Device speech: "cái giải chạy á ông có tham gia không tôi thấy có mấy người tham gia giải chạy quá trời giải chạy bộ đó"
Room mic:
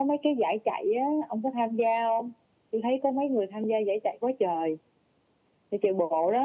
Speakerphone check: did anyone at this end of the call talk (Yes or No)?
No